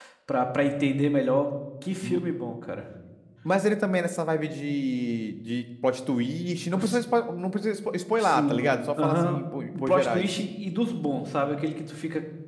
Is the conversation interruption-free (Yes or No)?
No